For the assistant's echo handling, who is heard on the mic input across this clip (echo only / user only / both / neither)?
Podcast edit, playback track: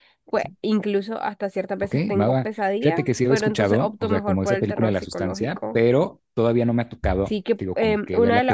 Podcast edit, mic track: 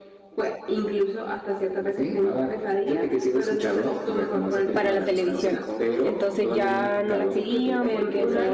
both